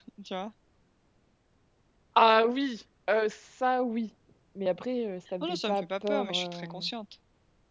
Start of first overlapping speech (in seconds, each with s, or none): 5.4 s